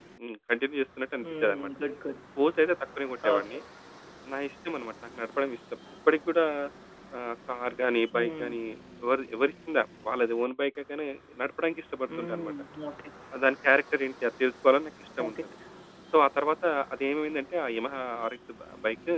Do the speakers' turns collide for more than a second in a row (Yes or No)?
No